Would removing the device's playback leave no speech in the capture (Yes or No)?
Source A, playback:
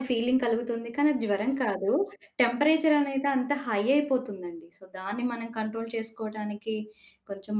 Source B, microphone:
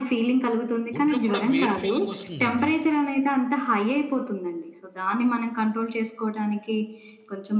No